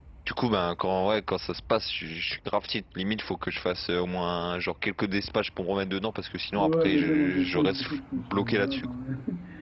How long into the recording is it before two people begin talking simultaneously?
6.6 s

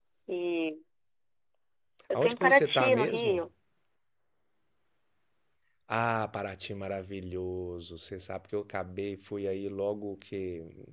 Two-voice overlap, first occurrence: 2.2 s

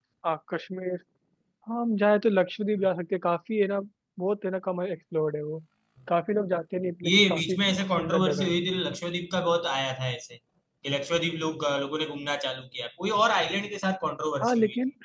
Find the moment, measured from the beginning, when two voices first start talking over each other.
7.0 s

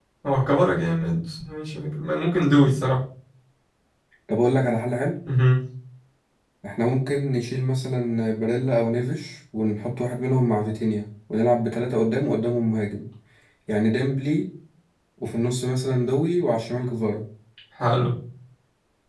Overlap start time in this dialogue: none

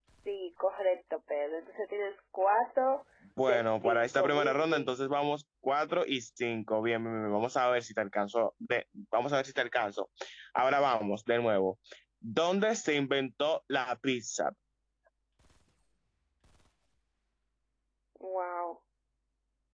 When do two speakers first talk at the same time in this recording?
3.5 s

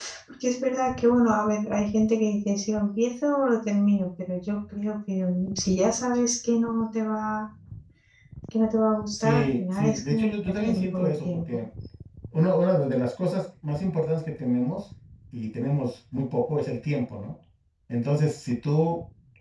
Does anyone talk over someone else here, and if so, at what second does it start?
9.2 s

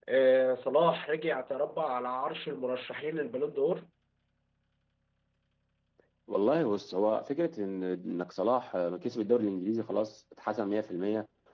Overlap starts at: none

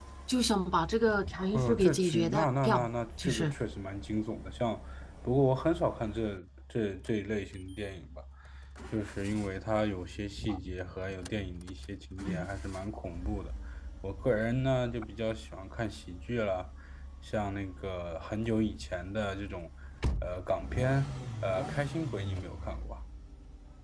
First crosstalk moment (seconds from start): 1.5 s

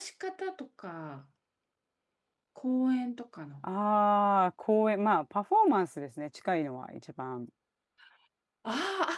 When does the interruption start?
none

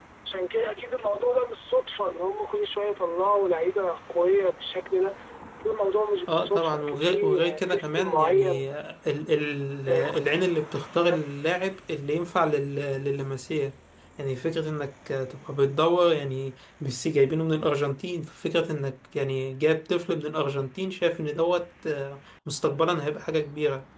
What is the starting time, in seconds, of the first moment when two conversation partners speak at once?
6.3 s

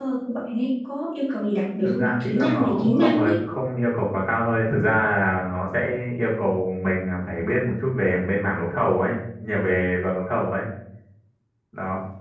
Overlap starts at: 1.8 s

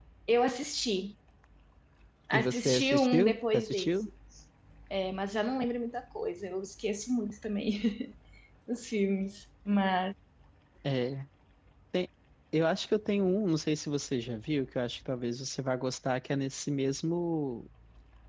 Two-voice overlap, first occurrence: 2.3 s

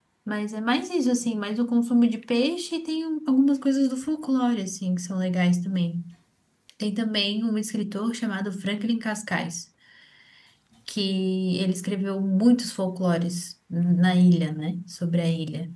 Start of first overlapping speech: none

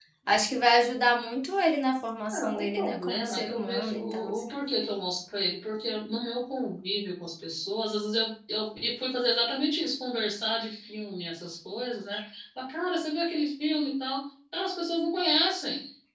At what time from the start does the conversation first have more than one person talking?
2.3 s

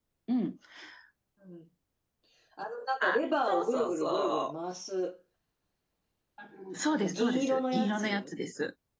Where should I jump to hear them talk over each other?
3.0 s

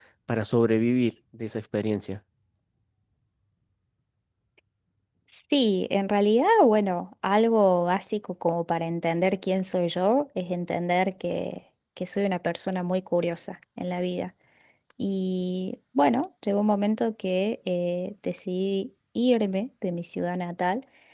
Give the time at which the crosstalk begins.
none

